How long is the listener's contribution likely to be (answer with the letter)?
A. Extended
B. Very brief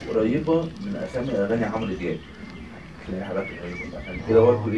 B